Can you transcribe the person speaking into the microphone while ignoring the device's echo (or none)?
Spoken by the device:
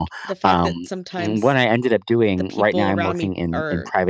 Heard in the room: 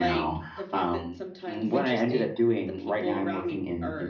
Oh, interesting.